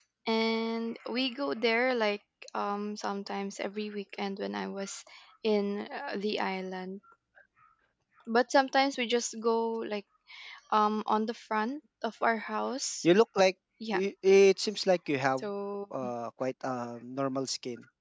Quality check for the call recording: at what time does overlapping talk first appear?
none

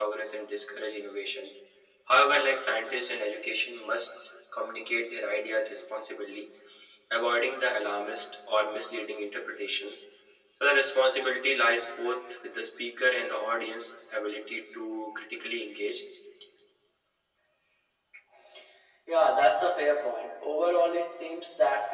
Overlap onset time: none

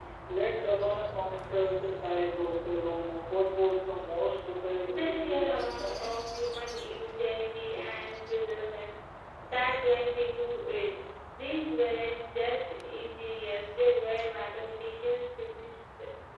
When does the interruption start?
4.9 s

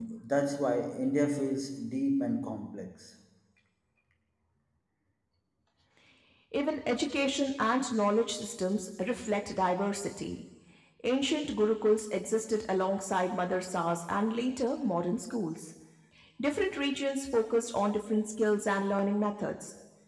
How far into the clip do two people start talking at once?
none

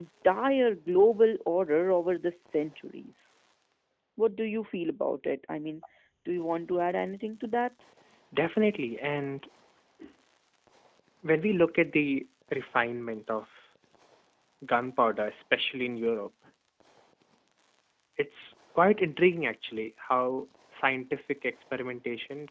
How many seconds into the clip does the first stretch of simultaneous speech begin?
none

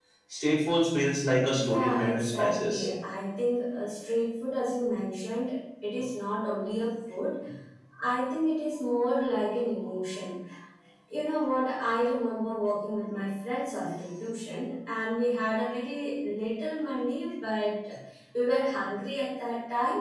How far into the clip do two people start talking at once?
1.5 s

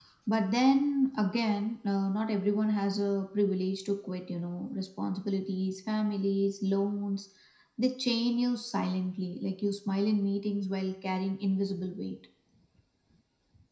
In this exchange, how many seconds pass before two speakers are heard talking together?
none

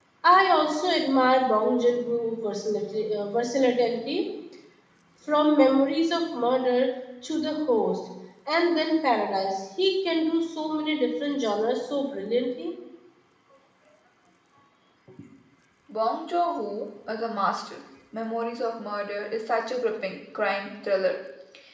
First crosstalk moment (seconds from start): none

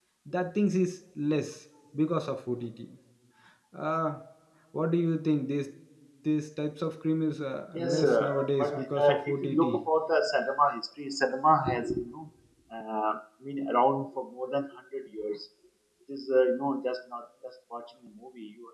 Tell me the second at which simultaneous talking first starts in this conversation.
7.7 s

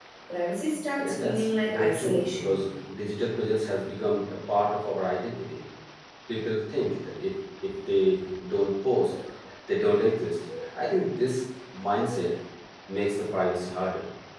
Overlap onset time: 1.0 s

